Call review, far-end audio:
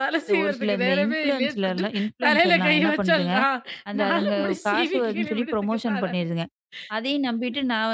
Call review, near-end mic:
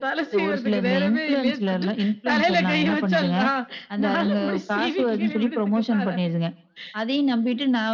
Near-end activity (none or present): none